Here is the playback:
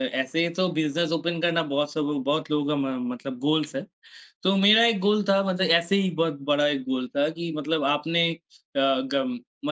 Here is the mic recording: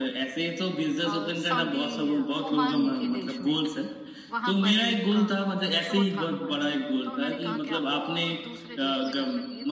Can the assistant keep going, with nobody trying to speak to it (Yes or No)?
No